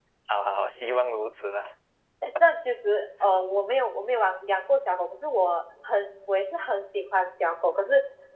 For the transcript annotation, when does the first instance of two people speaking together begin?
none

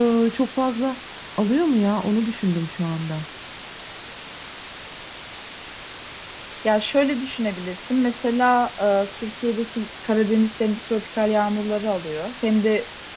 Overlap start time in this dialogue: none

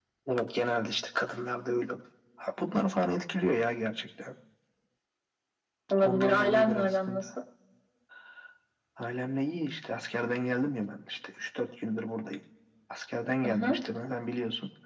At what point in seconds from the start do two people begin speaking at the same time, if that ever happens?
6 s

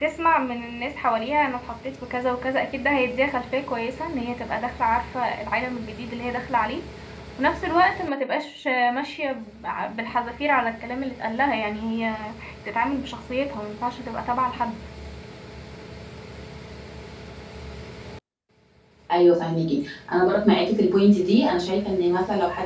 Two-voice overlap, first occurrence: none

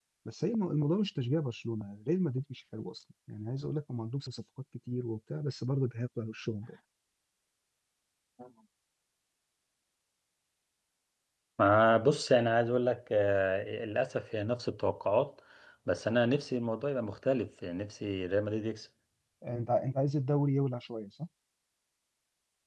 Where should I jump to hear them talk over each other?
none

